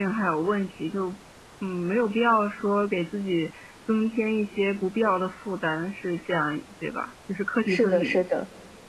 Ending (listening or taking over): taking over